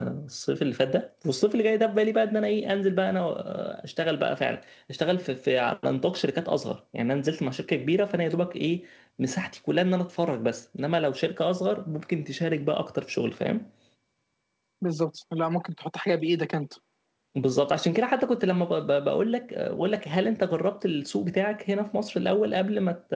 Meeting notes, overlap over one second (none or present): none